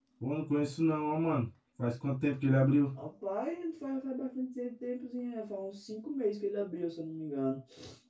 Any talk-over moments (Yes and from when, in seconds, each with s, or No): No